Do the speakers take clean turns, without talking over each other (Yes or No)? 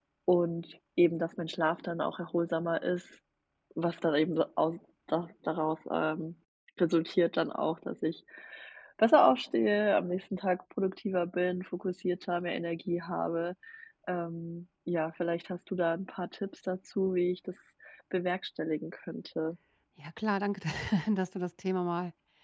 Yes